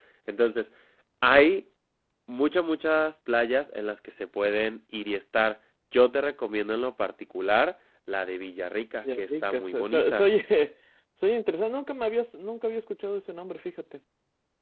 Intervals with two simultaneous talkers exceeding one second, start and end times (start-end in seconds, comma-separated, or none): 9.0-10.2